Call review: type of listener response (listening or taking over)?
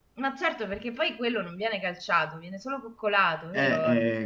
taking over